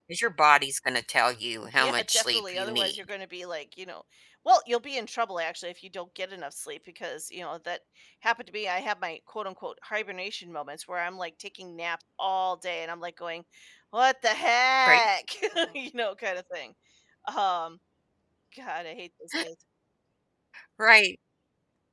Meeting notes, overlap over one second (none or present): present